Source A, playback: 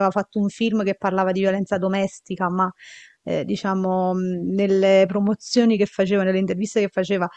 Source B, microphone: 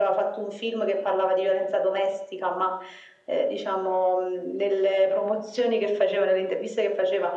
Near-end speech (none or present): none